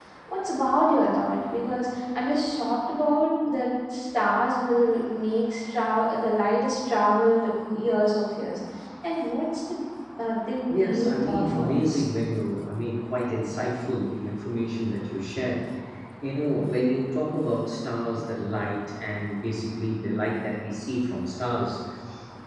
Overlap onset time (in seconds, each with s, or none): 10.7 s